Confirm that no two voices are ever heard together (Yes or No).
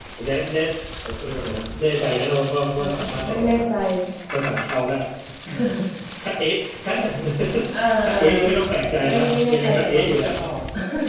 No